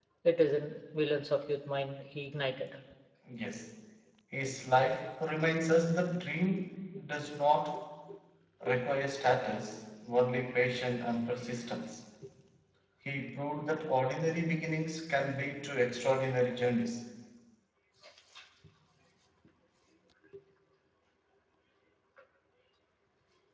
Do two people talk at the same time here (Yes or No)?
No